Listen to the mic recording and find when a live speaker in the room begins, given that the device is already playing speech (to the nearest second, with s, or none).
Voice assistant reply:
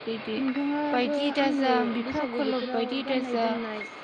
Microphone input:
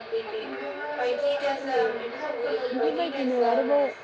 3 s